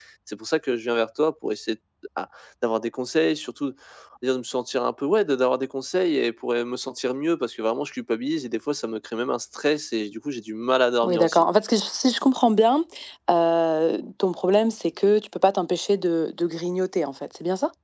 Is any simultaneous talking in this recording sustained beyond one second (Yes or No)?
No